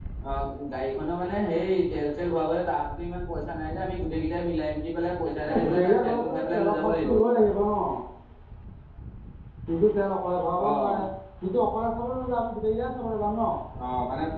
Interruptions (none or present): present